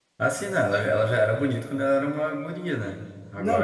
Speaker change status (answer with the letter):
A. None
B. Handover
B